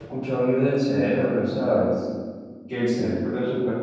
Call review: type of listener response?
listening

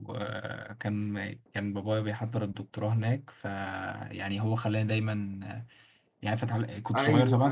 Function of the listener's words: taking over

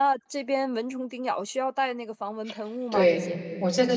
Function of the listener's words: taking over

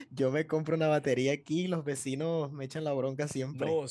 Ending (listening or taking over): taking over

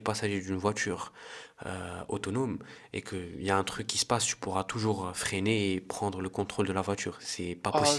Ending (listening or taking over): taking over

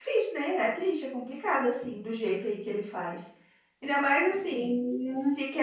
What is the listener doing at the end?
listening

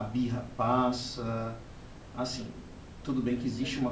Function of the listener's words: listening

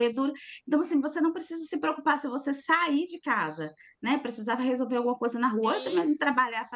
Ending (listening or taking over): listening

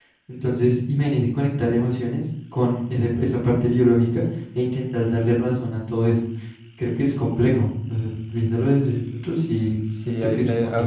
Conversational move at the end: taking over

